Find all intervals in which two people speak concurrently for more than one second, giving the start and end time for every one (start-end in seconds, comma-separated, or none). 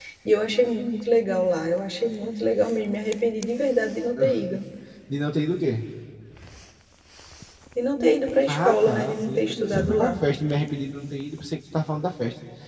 8.5-10.2